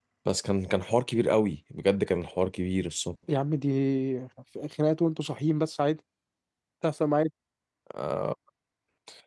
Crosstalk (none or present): none